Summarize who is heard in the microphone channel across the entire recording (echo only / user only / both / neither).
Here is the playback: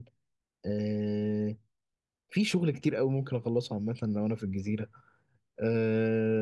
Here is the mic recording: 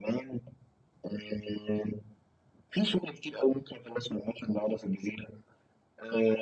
echo only